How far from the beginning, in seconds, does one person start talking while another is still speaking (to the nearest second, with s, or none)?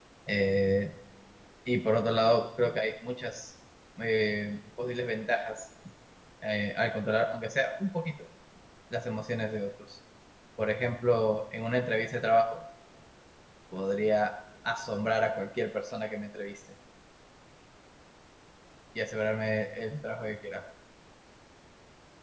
none